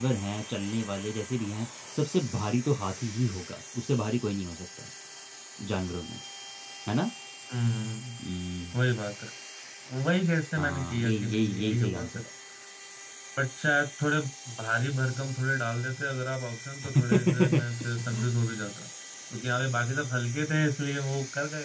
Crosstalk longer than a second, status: present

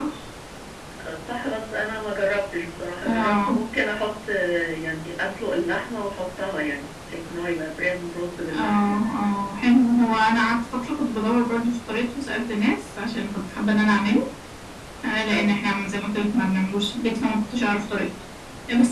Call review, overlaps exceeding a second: none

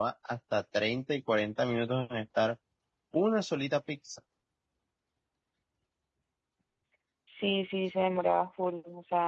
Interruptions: none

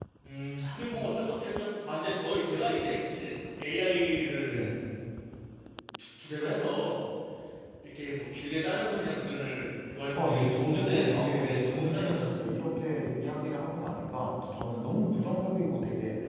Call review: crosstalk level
present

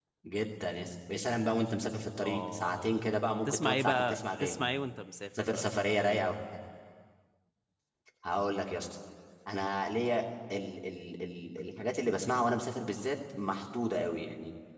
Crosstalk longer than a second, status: present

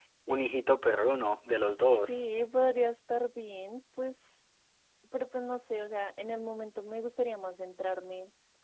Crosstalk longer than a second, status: none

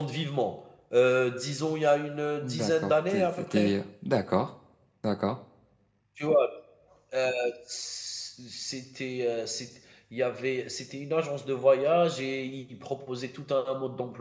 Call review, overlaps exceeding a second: present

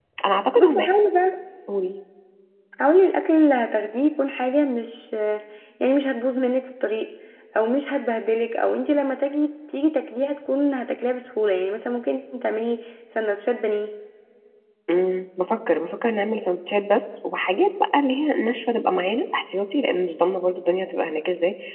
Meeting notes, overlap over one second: none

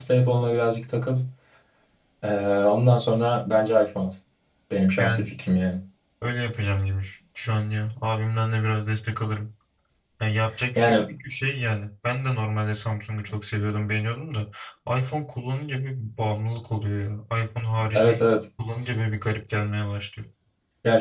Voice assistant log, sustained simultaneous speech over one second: none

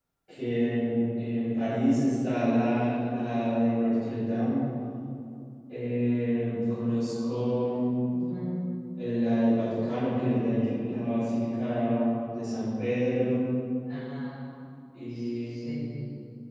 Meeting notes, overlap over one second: none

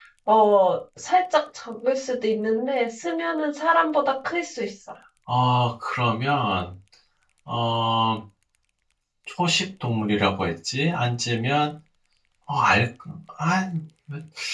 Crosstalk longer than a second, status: none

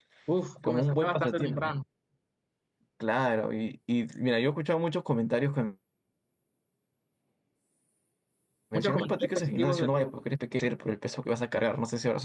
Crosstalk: present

